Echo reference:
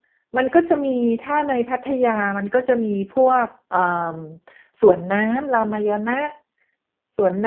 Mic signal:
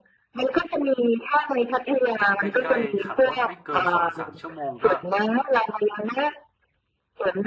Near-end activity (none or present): present